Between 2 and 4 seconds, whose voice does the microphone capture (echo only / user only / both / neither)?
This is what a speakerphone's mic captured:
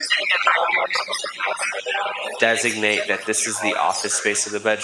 both